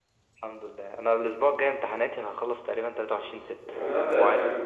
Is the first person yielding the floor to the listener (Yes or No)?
Yes